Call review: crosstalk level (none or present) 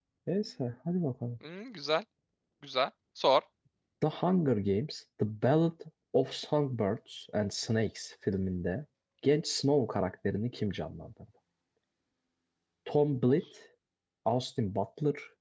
none